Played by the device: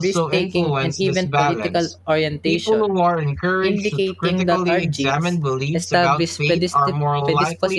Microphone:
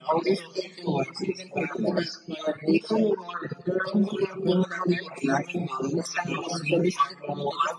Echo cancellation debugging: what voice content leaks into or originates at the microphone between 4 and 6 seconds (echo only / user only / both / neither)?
echo only